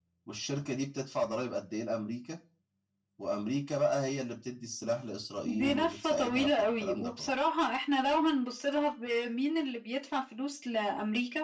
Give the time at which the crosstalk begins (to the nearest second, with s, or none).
5 s